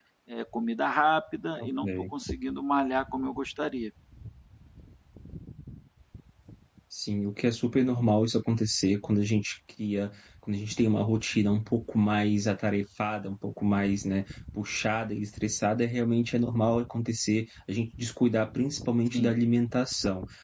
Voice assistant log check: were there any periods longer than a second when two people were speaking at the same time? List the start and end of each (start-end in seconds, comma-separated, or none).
none